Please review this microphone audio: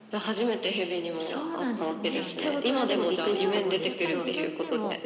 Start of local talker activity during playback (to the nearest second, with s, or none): 2 s